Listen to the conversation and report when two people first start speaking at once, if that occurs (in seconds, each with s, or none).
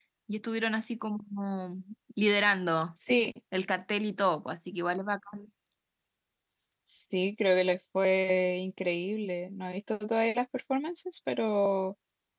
none